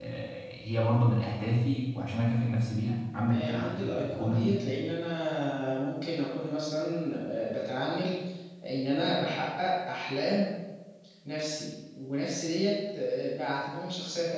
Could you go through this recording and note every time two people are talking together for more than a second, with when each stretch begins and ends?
3.3-4.6

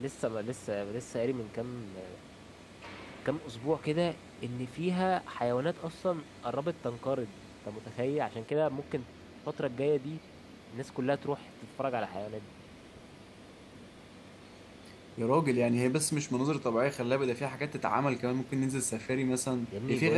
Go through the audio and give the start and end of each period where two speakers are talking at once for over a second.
none

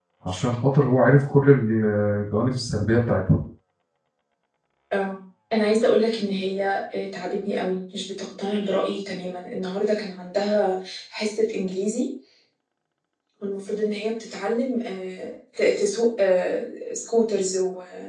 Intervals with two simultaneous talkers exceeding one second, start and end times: none

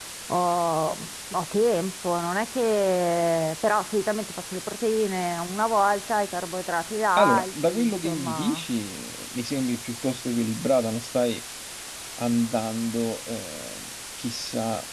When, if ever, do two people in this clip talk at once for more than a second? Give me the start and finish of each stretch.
7.2-8.6

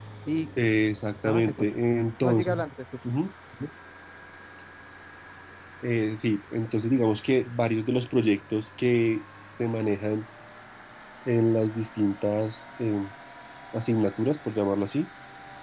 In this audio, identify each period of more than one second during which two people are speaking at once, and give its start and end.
none

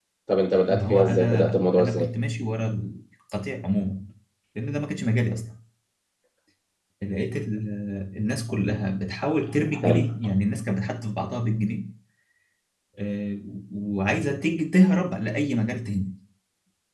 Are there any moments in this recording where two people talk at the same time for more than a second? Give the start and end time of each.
0.7-2.1

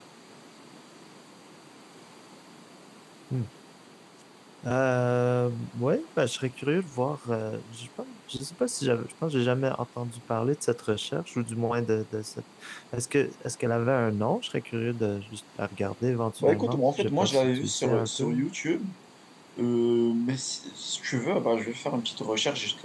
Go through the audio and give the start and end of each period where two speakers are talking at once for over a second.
16.4-18.4

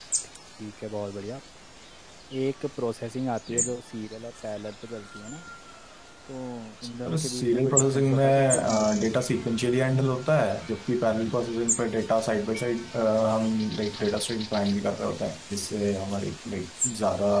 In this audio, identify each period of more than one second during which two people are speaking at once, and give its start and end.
7.0-9.0

